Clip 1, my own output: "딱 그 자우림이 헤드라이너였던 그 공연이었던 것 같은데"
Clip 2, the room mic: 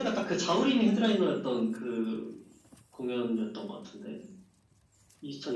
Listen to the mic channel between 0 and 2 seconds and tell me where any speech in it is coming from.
echo only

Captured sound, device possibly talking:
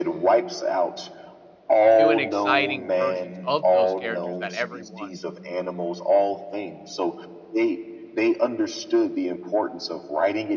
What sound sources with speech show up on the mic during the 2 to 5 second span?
both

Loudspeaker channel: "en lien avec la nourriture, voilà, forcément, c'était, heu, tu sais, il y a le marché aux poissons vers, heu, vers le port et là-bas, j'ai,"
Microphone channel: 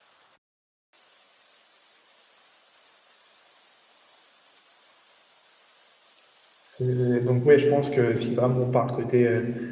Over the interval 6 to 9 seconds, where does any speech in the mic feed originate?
user only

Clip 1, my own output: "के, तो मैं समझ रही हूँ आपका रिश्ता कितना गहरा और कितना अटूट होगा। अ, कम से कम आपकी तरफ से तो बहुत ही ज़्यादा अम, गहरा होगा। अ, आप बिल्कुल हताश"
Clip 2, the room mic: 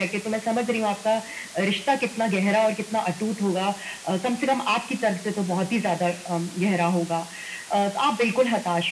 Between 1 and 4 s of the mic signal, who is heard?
echo only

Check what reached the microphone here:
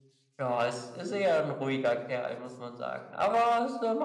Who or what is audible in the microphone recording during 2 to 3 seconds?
echo only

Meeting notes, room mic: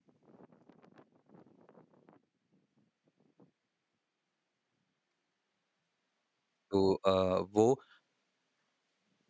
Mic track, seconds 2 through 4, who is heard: neither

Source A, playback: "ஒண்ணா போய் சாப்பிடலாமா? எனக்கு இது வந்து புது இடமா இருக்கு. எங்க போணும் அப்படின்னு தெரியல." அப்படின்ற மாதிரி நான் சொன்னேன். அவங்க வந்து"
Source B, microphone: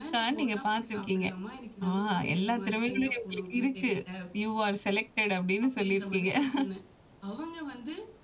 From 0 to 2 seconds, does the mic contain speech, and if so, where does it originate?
both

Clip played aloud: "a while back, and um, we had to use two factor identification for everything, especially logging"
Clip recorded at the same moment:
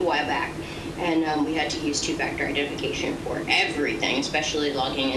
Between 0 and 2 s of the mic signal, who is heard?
echo only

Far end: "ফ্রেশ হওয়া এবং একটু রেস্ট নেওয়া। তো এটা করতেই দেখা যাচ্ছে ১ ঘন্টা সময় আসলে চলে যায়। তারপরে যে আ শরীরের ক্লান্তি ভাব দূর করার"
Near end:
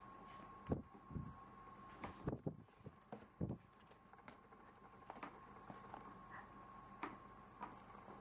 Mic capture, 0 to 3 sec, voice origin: neither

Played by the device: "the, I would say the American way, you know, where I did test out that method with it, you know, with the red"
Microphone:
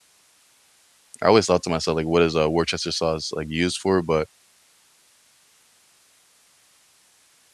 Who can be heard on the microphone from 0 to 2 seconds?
user only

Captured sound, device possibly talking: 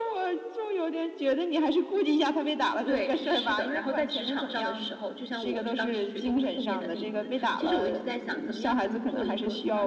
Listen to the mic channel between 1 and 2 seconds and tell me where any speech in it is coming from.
echo only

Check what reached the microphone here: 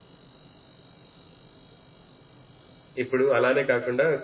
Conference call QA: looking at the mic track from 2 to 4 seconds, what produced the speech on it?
user only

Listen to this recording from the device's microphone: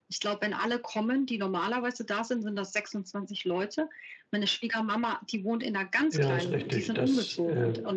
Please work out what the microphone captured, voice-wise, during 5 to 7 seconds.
both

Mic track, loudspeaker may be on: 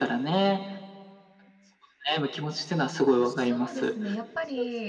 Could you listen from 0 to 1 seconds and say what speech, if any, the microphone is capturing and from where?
echo only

